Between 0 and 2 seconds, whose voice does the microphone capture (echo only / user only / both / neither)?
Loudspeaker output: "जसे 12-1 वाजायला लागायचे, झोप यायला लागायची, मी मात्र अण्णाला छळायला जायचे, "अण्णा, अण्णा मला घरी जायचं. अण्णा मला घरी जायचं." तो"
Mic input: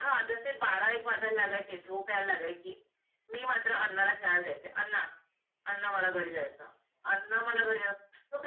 echo only